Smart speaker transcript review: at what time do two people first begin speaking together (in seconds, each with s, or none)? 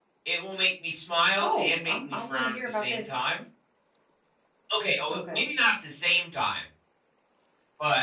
1.4 s